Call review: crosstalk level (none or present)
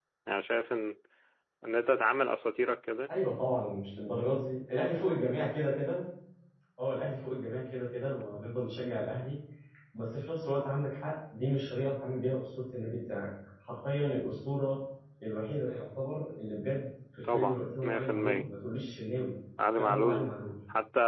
present